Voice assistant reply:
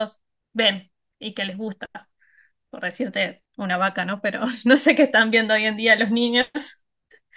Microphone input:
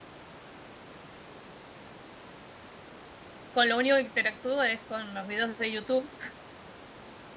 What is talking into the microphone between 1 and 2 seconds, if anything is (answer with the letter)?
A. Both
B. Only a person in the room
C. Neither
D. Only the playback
C